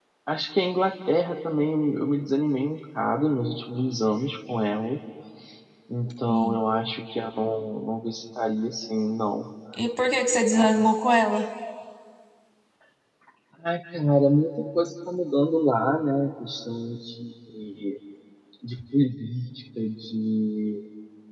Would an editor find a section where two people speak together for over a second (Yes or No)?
No